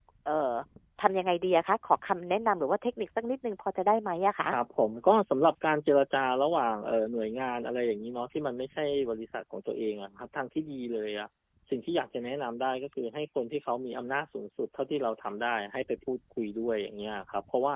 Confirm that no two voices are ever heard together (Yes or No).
Yes